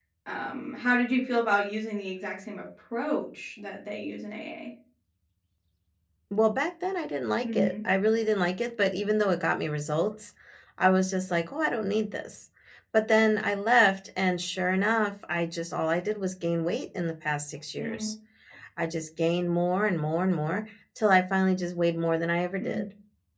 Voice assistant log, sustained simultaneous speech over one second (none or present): none